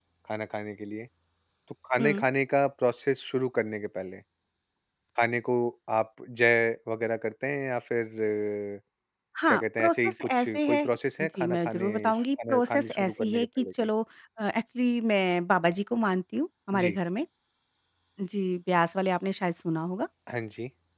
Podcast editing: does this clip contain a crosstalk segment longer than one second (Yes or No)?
Yes